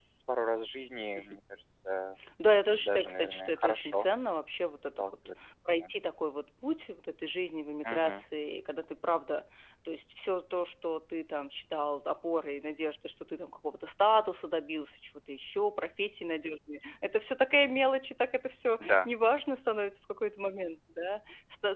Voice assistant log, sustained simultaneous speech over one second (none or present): present